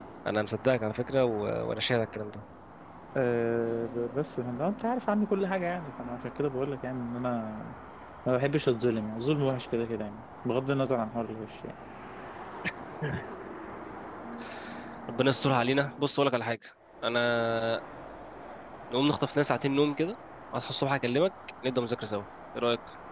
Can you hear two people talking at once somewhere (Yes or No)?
No